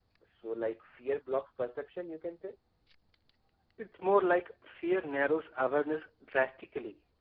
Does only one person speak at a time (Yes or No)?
Yes